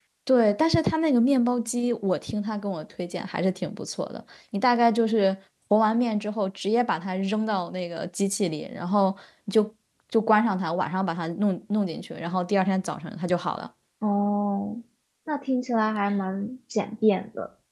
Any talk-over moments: No

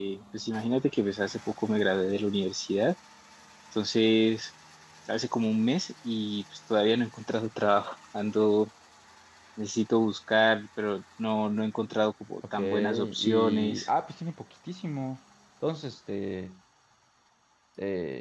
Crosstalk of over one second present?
Yes, from 12.5 s

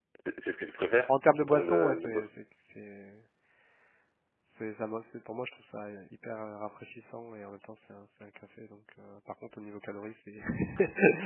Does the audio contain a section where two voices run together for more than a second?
Yes, from 1.1 s

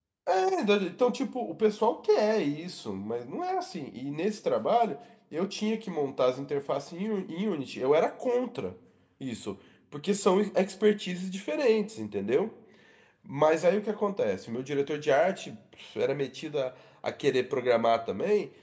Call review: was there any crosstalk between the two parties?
No

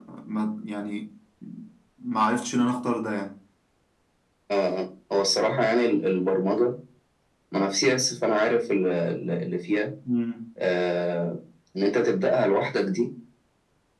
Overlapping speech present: No

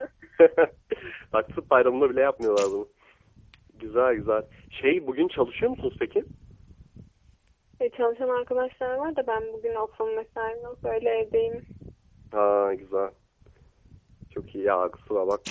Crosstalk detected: No

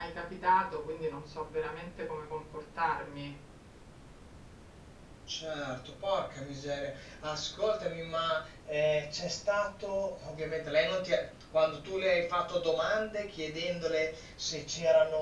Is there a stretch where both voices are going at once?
No

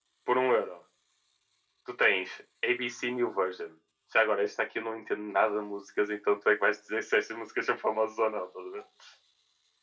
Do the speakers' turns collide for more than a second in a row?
No

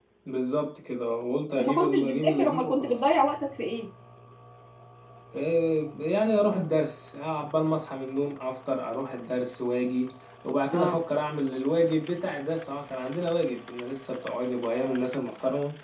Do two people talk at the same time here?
Yes, from 1.6 s

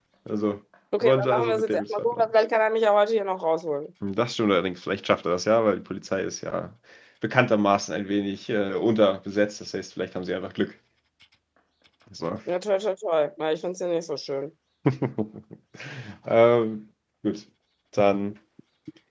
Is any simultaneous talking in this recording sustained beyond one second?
Yes, from 1.0 s

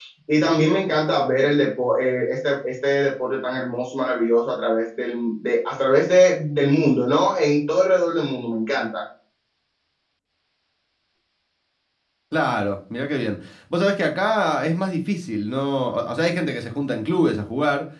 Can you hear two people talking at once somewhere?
No

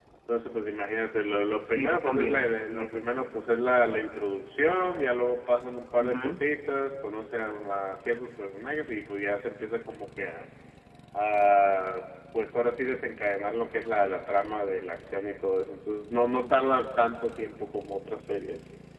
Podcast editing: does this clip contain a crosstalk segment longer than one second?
Yes, from 1.8 s

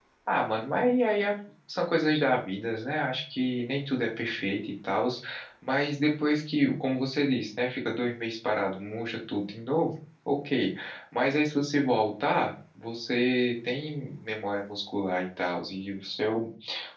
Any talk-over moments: No

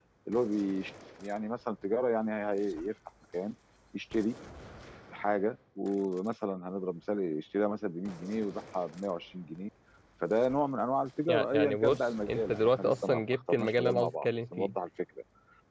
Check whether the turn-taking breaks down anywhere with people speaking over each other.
Yes, from 11.3 s

